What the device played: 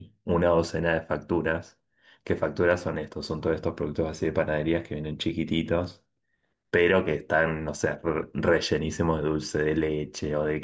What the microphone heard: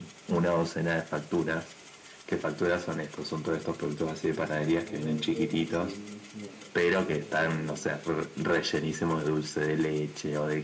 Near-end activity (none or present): present